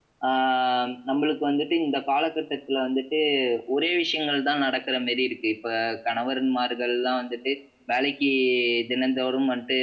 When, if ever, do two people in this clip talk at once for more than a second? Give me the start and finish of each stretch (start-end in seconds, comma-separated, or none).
none